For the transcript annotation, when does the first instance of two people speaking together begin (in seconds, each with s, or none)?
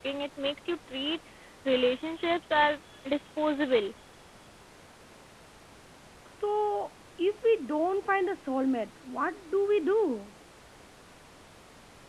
none